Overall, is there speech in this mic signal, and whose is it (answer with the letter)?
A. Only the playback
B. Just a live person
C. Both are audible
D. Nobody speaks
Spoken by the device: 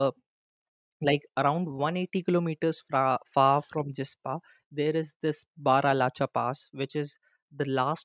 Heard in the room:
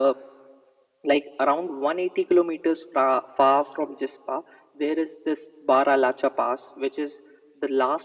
A